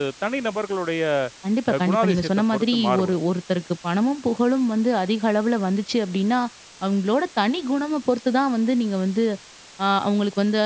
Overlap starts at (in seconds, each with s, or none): 1.7 s